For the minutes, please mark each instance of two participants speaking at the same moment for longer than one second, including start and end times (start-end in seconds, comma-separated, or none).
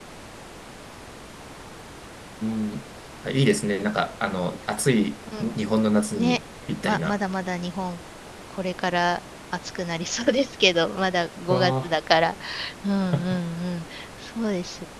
none